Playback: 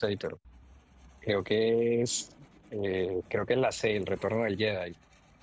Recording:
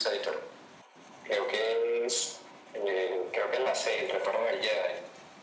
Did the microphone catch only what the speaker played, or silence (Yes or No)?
Yes